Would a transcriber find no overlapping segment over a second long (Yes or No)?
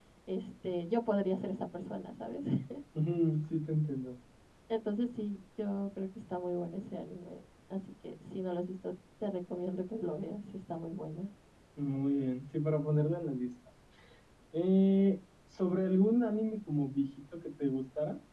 Yes